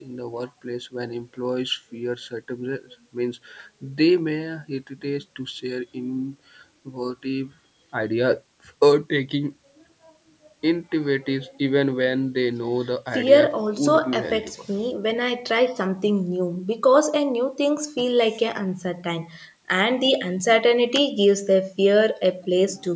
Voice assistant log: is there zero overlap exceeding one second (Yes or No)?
No